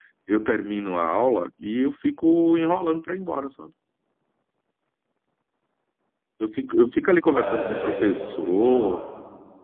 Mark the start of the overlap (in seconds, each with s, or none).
7.2 s